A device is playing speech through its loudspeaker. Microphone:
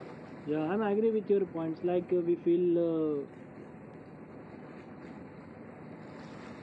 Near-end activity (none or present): present